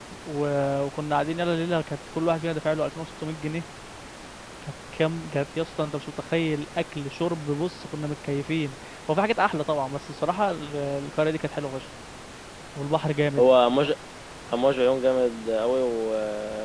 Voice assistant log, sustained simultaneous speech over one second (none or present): none